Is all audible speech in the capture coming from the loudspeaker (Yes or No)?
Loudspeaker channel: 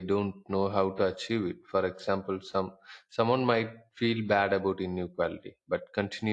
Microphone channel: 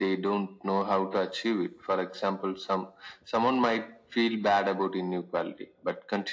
Yes